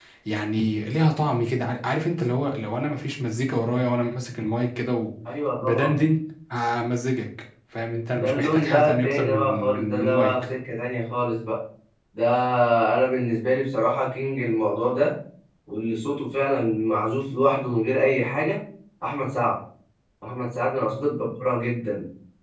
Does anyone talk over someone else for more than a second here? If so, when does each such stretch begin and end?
8.1-10.3

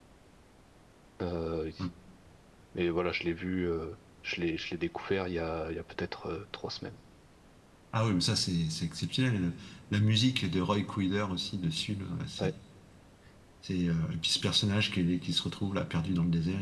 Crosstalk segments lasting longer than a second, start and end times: none

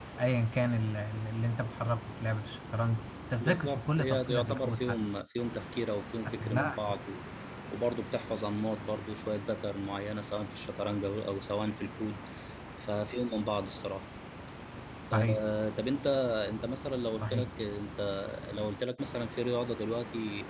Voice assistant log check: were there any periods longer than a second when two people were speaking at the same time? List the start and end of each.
3.4-5.0

